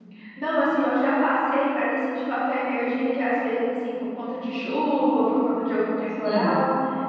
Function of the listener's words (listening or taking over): listening